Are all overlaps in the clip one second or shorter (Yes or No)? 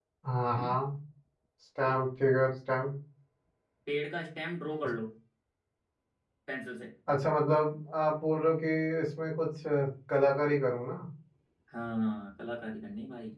Yes